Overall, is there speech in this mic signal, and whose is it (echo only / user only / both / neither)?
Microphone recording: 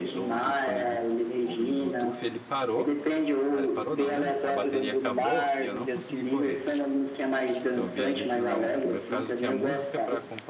both